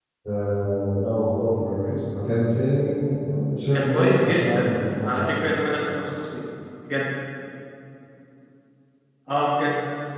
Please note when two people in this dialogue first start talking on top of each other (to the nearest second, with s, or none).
4 s